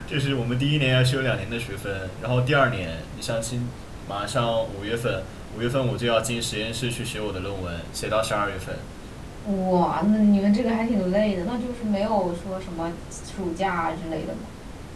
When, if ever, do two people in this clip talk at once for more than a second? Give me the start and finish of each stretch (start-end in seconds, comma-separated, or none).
none